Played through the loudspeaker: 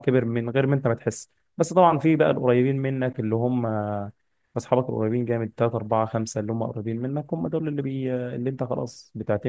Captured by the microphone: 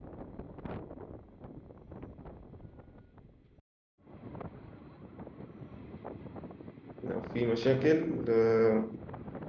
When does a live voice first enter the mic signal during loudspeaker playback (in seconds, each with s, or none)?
7.0 s